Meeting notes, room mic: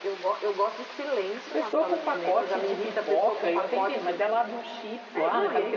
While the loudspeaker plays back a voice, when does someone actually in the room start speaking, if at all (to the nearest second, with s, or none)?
1 s